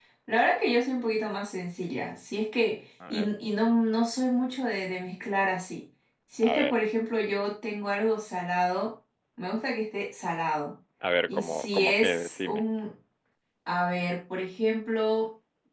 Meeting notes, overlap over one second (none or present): present